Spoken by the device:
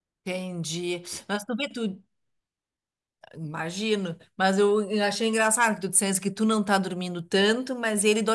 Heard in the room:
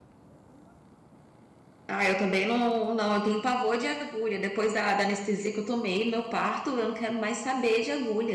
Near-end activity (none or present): present